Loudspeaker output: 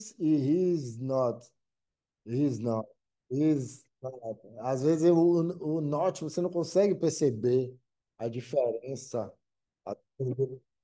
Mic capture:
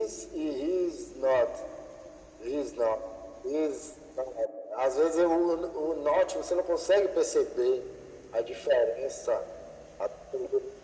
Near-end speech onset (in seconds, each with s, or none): none